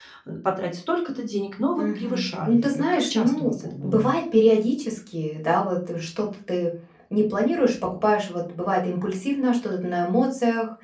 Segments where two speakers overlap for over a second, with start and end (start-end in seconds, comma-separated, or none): 1.8-4.1